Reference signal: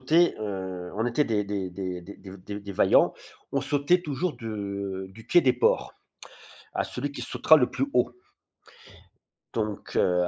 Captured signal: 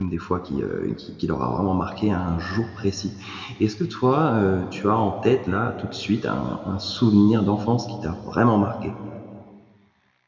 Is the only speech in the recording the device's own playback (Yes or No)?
No